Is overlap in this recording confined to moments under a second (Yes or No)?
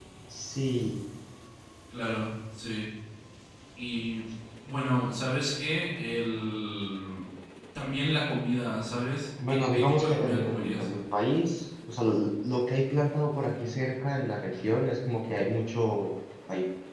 No